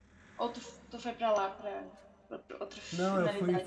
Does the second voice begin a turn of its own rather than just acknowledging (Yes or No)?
Yes